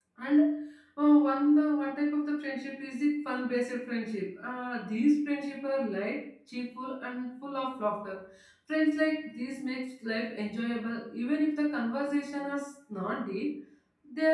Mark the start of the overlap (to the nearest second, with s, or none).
none